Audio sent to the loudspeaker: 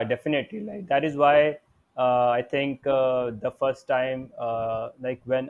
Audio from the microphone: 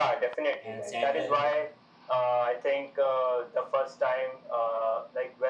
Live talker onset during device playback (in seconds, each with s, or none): 0.6 s